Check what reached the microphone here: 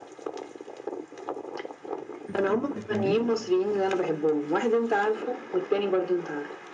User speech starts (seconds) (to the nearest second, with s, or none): 2 s